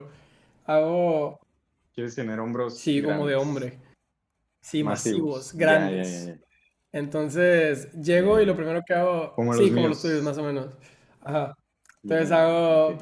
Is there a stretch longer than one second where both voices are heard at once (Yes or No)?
Yes